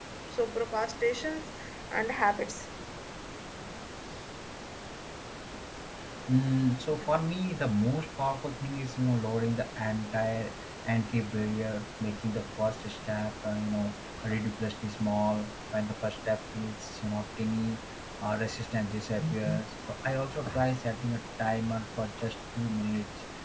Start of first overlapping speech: none

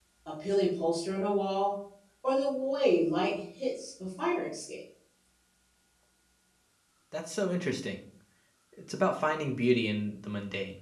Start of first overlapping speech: none

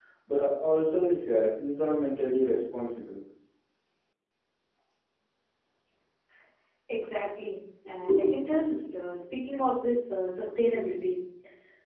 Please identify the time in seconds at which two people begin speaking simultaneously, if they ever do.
none

